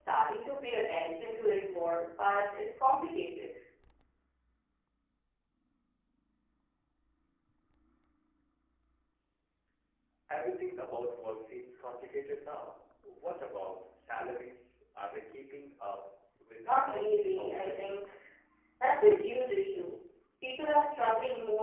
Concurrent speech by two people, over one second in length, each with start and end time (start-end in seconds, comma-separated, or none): 16.6-18.0